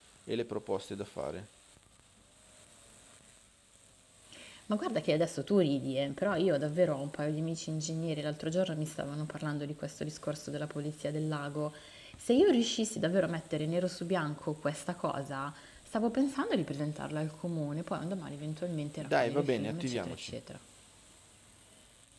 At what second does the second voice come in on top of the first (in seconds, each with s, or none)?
19.0 s